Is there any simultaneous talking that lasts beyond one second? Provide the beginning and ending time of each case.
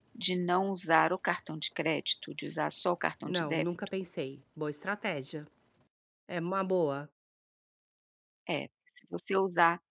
none

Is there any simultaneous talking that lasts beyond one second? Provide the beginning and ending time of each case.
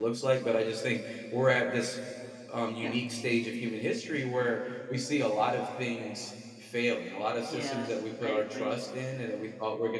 7.4-8.8

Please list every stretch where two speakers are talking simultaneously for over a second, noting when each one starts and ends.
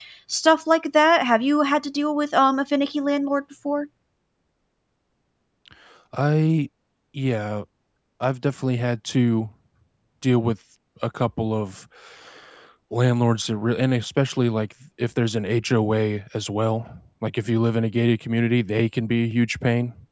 none

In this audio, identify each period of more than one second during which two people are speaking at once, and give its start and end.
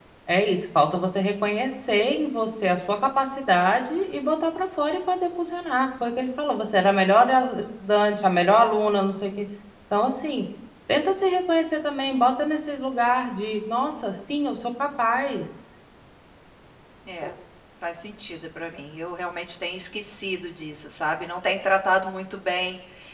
none

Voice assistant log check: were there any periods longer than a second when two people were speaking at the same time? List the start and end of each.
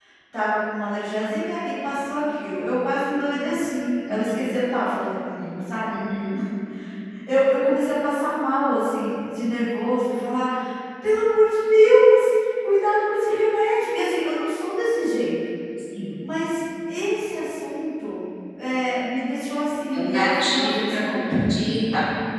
19.9-21.4

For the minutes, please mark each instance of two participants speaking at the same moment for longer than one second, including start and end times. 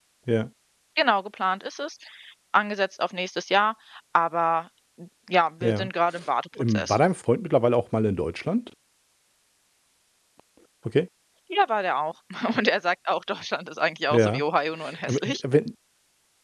none

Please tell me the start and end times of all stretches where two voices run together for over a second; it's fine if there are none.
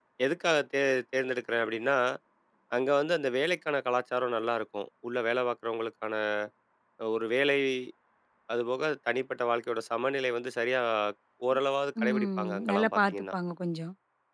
12.0-13.3

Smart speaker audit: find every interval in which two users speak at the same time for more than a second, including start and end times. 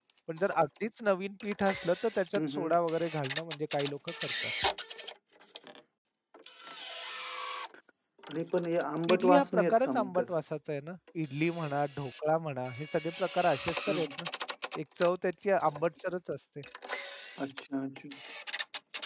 9.1-10.4

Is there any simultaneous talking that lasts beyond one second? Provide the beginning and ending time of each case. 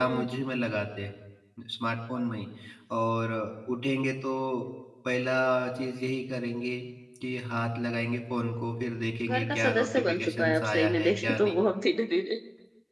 9.2-11.6

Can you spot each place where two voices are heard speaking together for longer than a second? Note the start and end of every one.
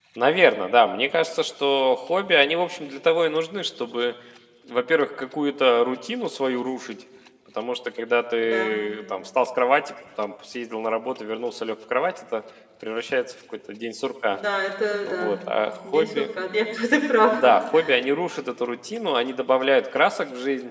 none

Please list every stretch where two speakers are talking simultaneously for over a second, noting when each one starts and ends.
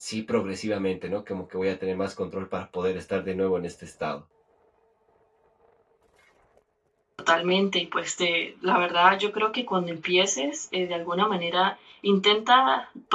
none

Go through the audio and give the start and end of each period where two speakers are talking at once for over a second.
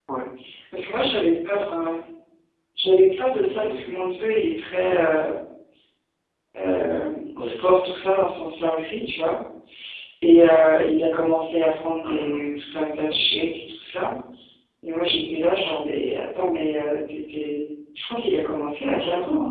none

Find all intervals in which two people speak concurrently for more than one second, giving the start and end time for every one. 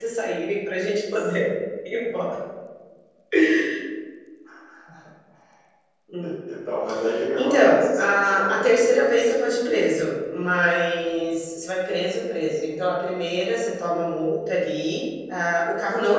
7.4-8.9

